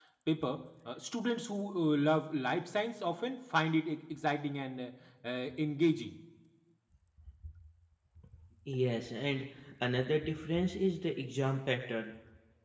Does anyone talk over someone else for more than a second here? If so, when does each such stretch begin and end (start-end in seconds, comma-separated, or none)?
none